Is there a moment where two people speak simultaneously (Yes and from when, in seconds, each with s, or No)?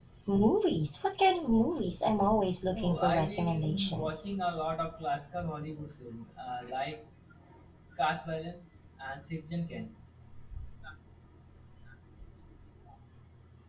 Yes, from 2.7 s